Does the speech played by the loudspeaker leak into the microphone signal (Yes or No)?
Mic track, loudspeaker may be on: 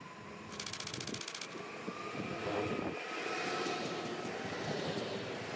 No